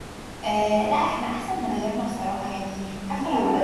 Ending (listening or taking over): listening